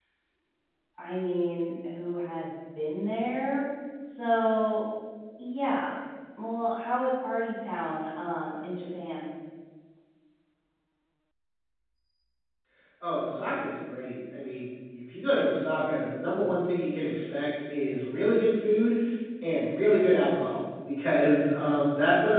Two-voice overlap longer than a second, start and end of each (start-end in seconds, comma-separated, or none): none